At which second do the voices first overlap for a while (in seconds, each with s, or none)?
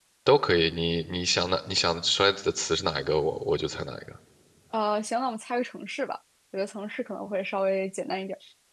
none